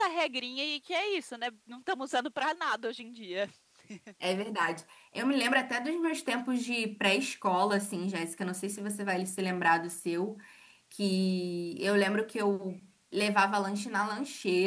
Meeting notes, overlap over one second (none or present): none